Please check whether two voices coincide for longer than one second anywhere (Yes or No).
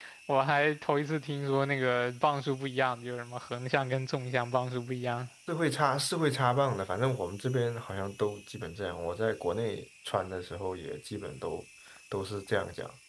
No